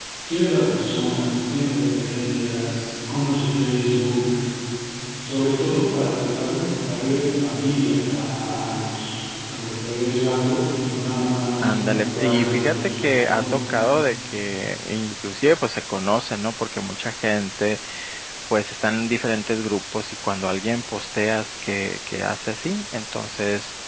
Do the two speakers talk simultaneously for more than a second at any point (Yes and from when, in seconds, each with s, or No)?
Yes, from 11.6 s